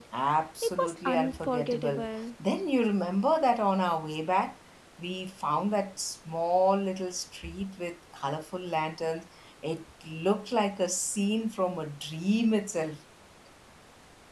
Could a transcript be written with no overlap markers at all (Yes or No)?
No